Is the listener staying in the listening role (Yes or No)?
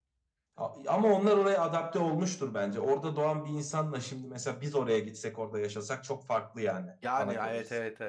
No